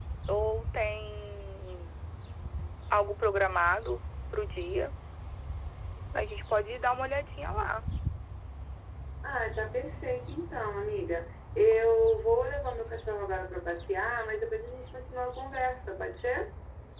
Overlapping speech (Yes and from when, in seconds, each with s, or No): No